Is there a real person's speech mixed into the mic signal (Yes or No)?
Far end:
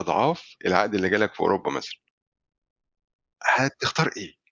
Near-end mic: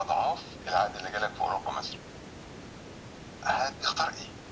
No